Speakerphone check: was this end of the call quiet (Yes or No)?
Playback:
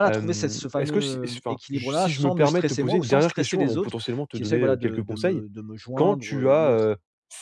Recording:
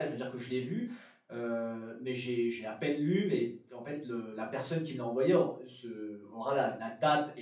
No